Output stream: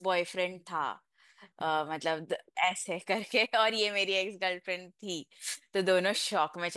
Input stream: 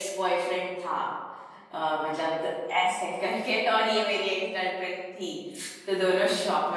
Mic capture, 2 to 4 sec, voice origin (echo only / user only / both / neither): echo only